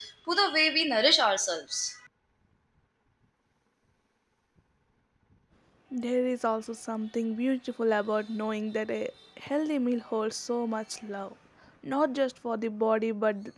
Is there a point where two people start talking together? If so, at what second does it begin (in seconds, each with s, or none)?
none